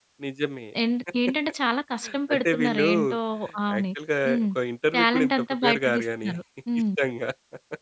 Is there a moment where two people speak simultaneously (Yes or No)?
Yes